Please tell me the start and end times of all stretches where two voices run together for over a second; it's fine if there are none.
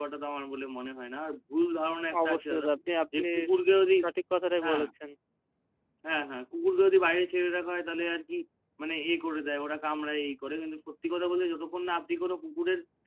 none

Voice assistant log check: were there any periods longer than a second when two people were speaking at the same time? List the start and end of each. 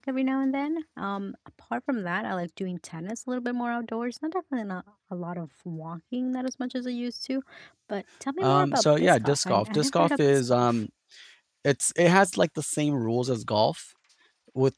8.4-10.8

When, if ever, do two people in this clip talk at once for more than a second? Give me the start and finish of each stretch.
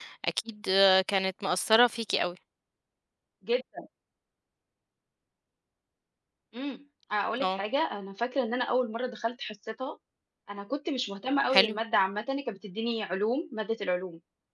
none

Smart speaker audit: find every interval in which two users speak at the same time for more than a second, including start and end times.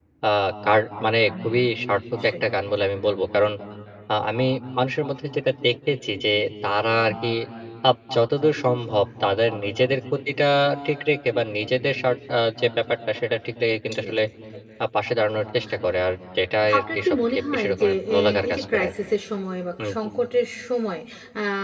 16.7-18.9

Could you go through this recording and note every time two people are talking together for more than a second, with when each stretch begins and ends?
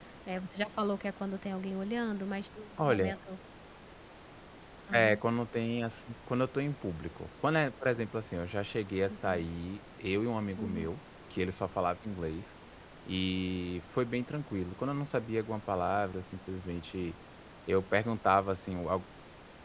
none

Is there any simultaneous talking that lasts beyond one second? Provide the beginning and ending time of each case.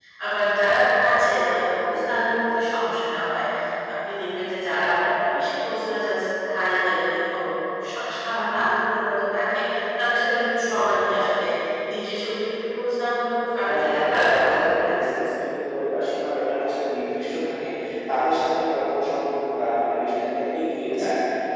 13.7-14.9

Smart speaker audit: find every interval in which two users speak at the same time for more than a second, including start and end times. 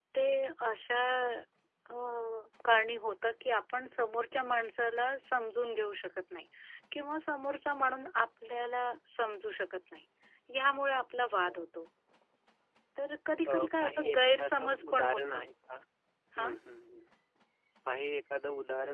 13.5-15.5

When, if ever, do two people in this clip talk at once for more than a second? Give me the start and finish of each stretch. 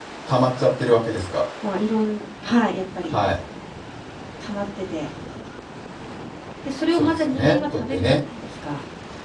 6.9-8.2

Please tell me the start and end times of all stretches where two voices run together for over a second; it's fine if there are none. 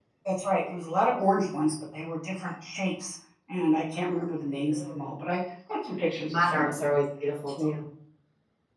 none

